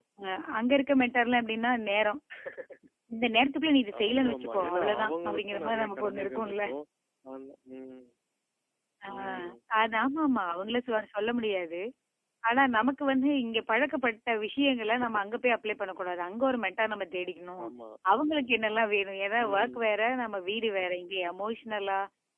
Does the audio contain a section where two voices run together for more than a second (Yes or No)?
Yes